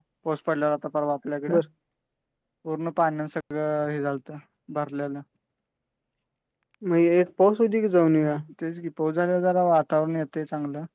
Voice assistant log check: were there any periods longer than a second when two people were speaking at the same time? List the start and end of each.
none

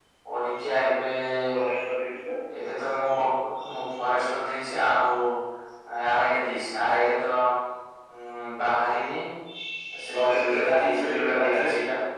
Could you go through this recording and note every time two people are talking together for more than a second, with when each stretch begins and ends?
10.1-11.7

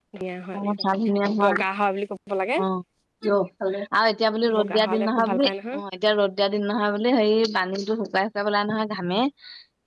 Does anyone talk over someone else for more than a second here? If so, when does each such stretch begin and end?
4.6-5.8

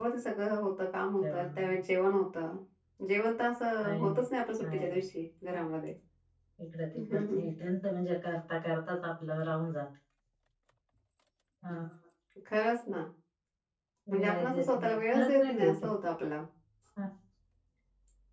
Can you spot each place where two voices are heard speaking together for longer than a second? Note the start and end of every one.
14.2-15.7

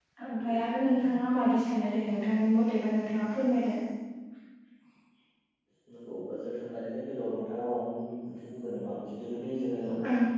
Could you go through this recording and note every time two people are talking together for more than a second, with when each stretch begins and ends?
none

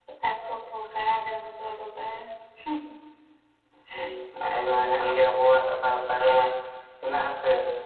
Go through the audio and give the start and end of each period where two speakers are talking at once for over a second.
none

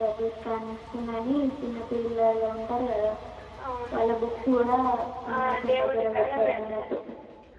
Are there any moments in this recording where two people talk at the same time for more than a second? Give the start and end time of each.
5.3-6.8

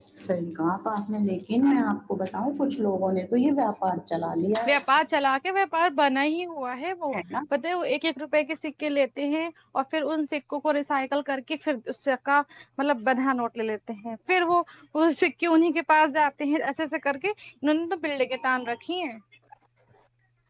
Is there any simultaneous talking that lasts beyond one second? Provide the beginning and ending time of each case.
none

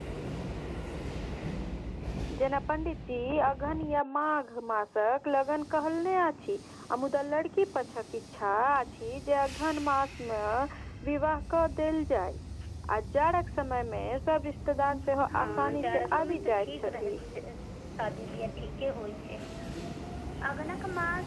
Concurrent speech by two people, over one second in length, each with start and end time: 15.3-17.1

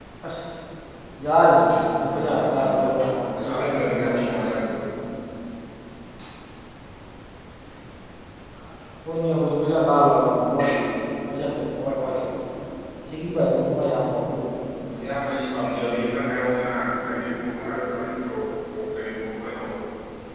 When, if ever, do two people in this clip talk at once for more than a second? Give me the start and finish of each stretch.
2.1-4.5

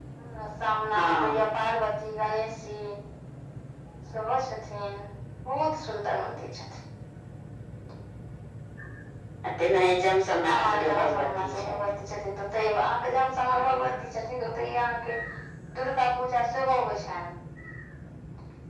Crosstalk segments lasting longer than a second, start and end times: 10.4-11.8

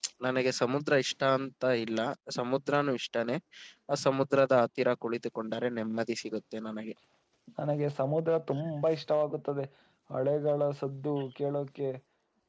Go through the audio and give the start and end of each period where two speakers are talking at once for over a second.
none

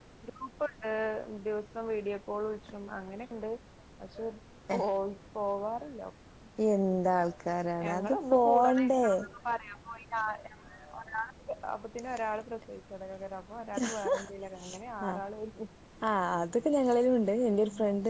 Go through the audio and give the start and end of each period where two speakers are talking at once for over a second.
7.8-9.0

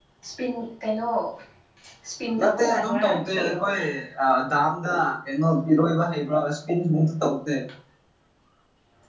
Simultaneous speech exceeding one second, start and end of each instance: 2.4-3.6

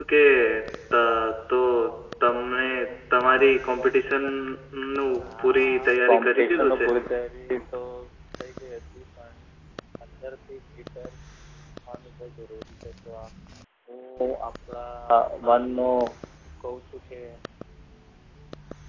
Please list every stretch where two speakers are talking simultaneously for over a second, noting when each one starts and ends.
5.4-6.9

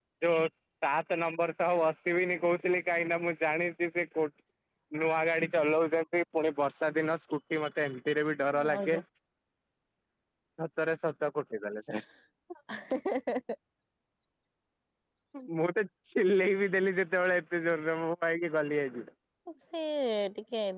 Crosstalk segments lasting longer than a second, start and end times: none

